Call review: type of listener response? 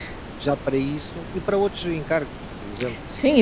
taking over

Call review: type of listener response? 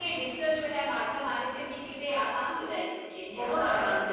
taking over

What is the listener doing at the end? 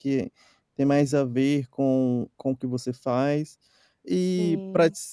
listening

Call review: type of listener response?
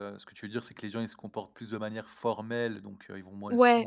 listening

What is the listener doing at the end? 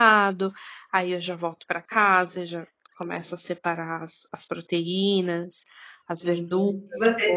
taking over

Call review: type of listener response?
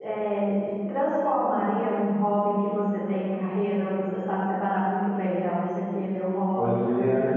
listening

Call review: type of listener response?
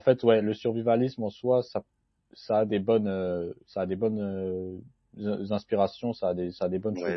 taking over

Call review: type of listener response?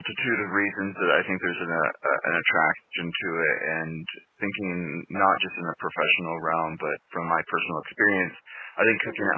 listening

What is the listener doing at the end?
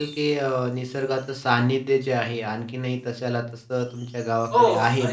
taking over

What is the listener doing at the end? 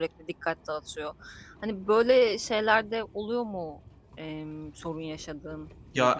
taking over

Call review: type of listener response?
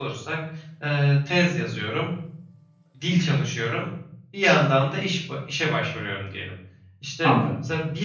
listening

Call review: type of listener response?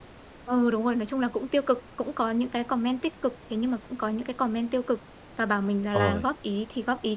listening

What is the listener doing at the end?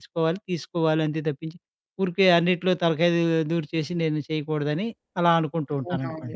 taking over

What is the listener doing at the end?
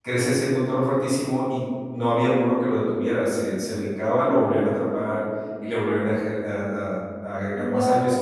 listening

